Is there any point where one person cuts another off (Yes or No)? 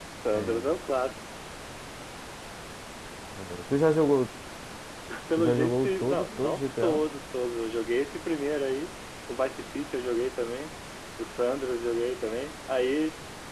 Yes